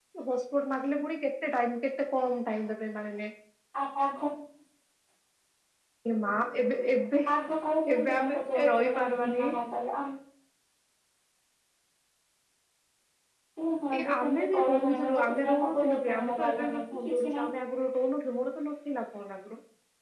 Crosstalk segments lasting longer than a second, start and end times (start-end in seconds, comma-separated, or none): 7.9-9.4, 13.9-16.8